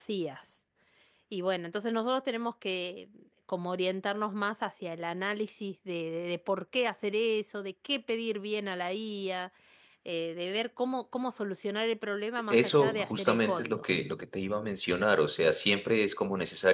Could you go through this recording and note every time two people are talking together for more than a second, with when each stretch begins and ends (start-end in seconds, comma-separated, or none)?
12.5-13.8